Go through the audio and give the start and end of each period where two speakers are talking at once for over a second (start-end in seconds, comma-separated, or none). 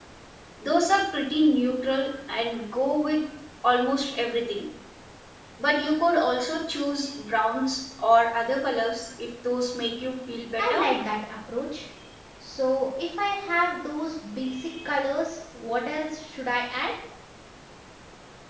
none